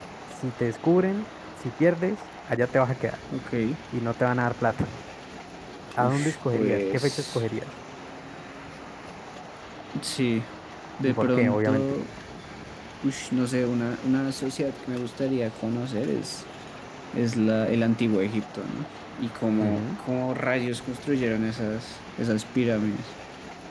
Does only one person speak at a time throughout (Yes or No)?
No